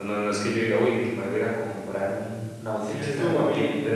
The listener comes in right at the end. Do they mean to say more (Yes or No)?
Yes